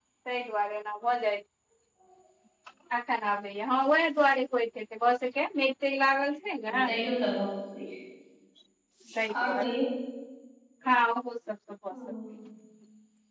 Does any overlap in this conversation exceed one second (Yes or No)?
No